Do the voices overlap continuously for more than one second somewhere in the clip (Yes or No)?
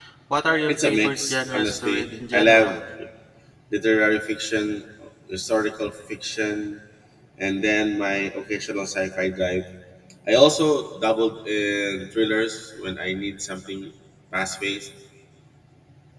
Yes